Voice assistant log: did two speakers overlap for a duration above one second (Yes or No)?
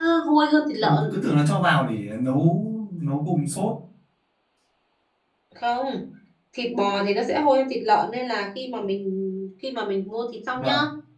No